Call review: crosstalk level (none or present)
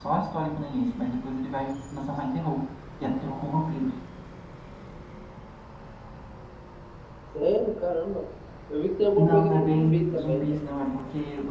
present